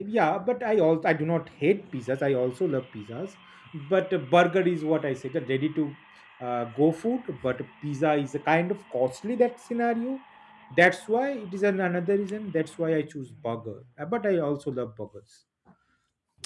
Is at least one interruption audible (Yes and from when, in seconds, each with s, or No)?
No